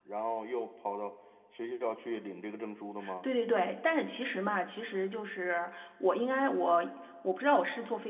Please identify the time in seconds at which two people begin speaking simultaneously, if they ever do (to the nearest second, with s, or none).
none